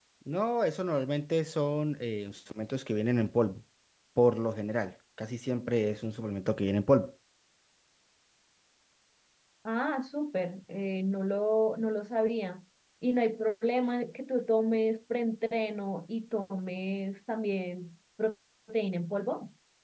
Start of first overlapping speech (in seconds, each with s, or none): none